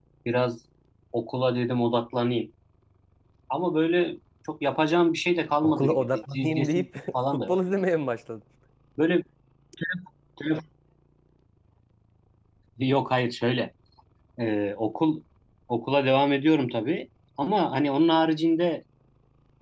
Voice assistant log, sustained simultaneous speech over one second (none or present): present